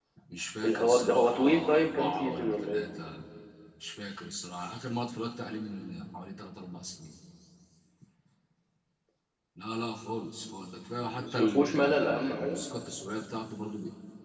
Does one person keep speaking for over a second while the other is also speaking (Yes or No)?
Yes